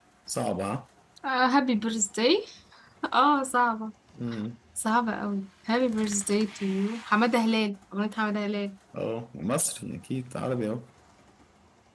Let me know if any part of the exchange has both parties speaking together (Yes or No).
No